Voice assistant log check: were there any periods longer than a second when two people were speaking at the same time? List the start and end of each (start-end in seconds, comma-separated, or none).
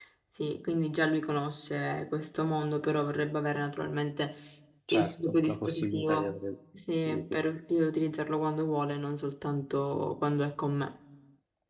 4.9-6.3